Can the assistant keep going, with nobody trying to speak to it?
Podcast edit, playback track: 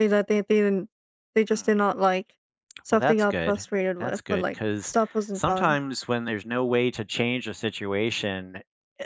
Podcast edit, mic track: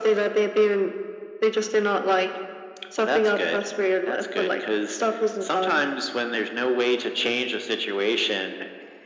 Yes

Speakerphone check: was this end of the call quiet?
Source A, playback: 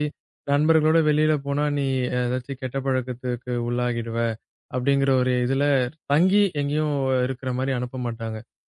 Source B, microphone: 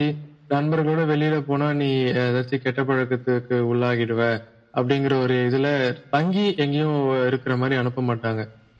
Yes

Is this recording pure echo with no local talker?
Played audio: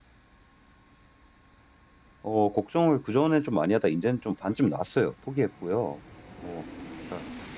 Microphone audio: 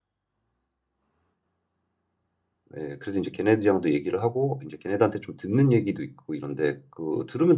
No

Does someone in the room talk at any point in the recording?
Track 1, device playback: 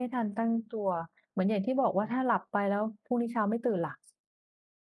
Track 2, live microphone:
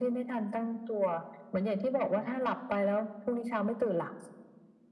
No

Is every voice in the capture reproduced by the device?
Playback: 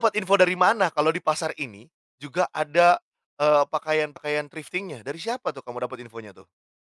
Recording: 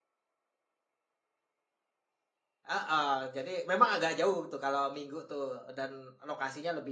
No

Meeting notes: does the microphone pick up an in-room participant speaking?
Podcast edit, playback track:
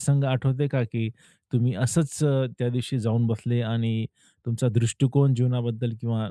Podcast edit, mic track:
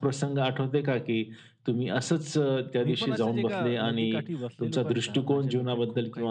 Yes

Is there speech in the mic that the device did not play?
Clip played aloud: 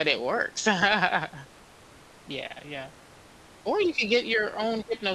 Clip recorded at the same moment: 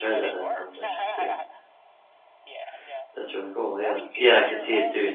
Yes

